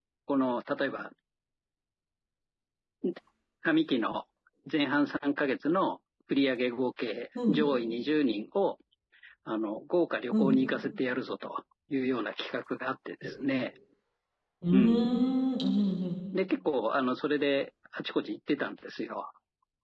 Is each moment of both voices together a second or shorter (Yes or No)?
Yes